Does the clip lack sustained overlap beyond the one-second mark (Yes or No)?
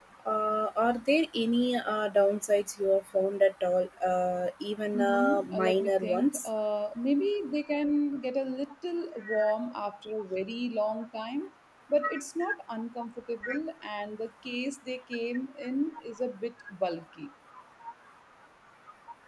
No